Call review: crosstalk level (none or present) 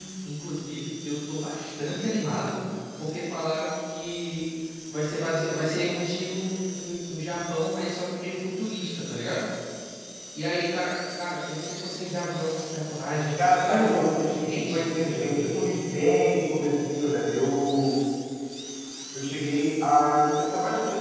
present